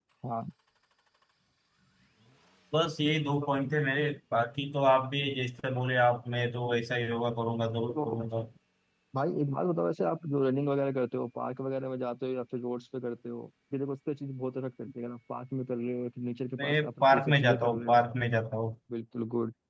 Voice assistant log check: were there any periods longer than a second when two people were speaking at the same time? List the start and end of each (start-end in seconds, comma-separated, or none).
16.6-18.0